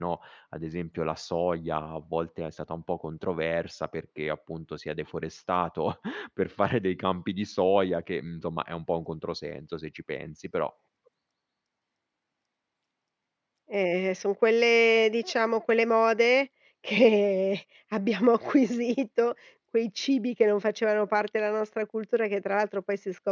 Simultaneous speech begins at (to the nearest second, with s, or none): none